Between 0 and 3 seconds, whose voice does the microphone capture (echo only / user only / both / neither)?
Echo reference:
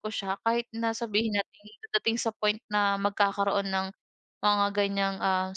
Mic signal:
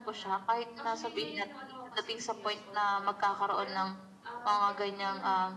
both